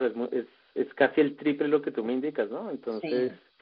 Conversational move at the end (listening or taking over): taking over